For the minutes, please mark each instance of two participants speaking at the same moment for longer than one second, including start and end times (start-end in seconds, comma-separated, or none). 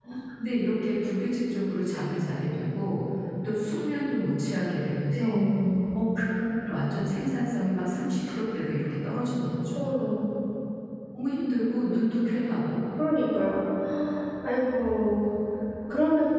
none